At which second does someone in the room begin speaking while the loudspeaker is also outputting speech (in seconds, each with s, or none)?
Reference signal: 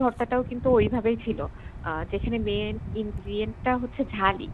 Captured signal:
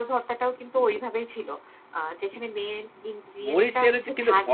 3.5 s